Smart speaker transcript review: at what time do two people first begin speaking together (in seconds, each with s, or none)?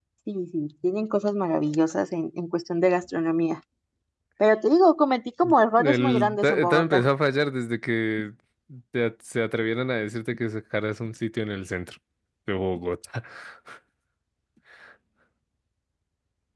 5.8 s